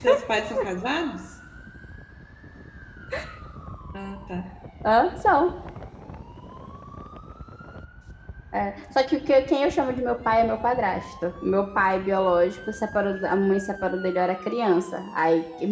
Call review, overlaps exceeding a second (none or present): none